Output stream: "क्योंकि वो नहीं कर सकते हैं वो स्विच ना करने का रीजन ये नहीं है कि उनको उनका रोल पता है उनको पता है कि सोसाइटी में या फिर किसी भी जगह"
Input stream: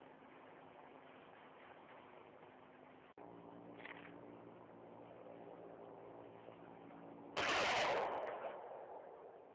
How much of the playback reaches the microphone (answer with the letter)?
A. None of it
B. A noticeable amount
A